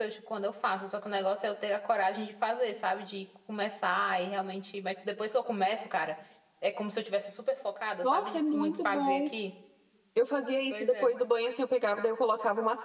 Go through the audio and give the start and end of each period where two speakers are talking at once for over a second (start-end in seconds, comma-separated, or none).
8.0-9.3